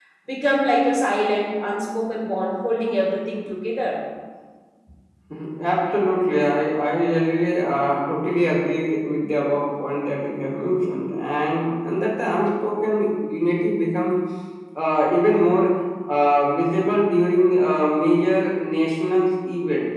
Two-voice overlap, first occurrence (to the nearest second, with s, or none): none